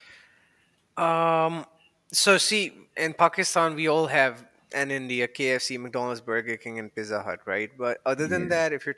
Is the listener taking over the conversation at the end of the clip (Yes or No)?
No